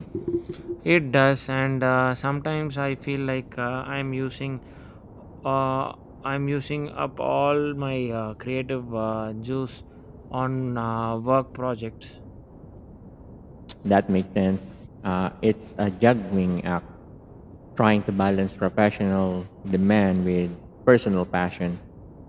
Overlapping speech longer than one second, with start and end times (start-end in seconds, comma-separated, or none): none